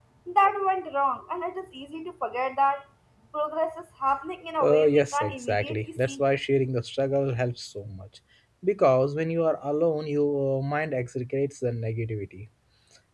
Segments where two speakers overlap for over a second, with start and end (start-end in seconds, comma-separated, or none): 4.6-6.2